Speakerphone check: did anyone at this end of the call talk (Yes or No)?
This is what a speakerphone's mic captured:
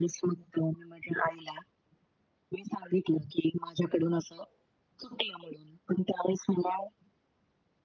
No